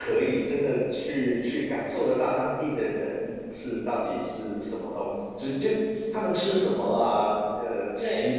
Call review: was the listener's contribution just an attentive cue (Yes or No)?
Yes